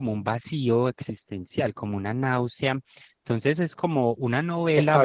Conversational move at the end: taking over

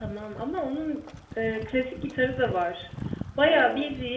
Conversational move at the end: listening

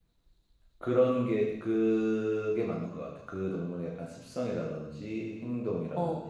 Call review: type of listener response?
listening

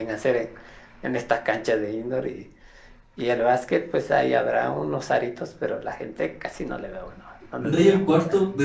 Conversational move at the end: taking over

